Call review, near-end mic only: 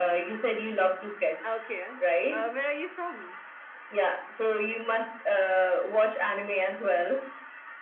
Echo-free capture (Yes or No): No